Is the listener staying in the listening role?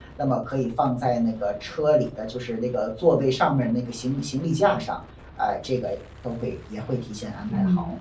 No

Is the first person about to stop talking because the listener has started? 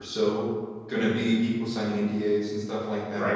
No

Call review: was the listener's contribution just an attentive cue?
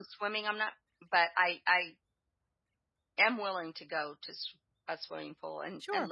No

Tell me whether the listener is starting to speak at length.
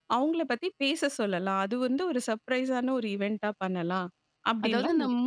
Yes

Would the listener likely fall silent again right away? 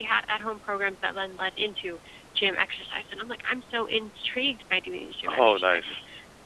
Yes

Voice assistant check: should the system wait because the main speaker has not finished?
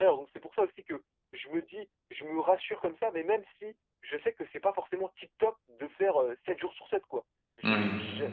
Yes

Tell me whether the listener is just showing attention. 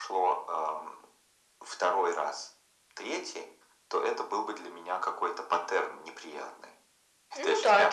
No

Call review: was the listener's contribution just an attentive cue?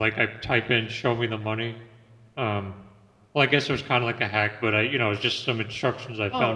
No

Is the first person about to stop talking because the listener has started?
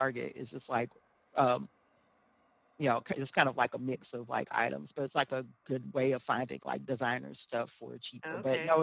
Yes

